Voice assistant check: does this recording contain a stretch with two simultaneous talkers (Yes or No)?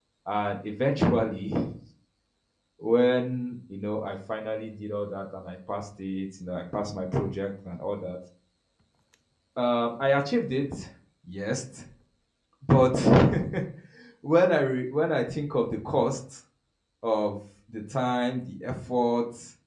No